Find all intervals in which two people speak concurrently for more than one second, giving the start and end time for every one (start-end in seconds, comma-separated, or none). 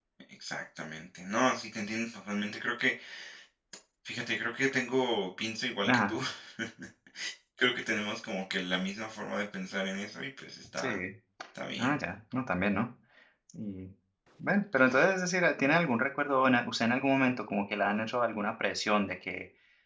none